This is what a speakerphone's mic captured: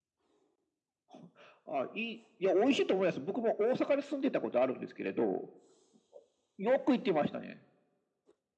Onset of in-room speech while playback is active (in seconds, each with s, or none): none